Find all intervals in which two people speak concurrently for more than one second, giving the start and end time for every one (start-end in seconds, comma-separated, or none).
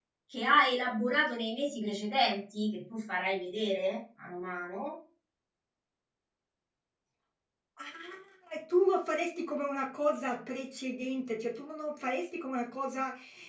none